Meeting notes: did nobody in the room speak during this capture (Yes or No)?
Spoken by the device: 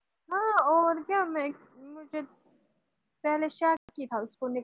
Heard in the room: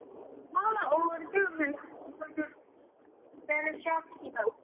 Yes